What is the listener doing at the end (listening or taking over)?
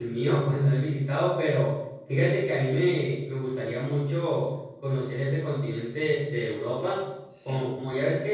listening